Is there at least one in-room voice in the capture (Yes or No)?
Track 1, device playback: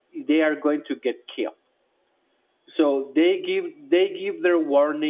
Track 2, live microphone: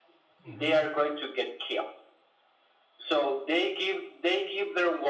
Yes